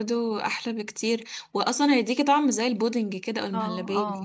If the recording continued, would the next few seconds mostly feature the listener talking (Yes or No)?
Yes